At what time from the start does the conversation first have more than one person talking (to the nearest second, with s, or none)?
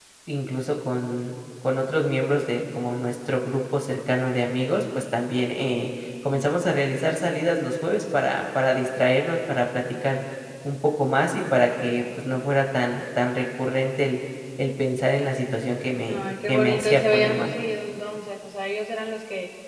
16 s